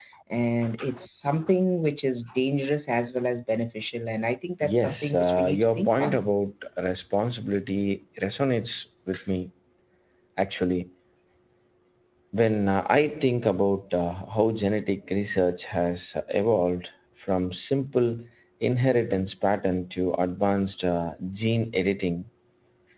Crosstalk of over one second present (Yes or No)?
Yes